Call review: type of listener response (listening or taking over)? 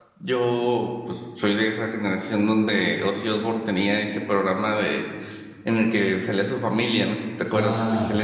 taking over